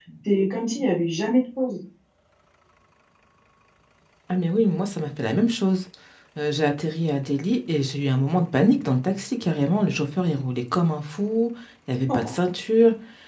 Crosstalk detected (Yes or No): No